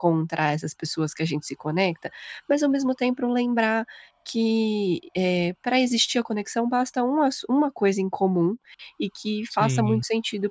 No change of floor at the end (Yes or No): Yes